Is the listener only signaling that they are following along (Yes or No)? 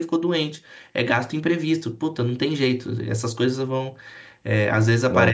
Yes